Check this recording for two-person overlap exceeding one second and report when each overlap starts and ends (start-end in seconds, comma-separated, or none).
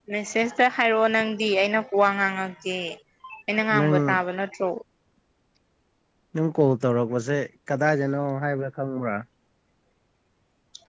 none